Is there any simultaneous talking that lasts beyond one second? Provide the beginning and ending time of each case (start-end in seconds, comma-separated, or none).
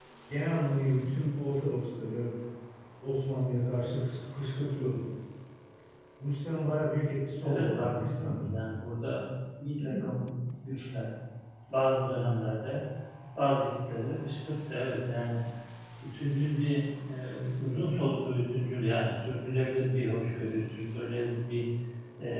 7.4-8.7